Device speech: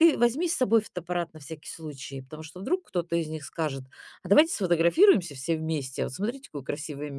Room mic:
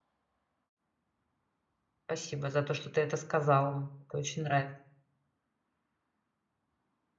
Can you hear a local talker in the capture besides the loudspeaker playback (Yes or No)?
Yes